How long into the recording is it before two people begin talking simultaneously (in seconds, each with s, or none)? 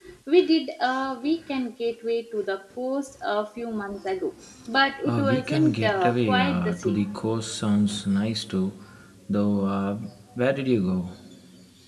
5.0 s